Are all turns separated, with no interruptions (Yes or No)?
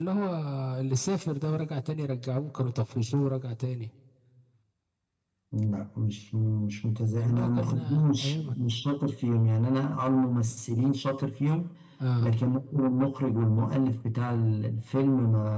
No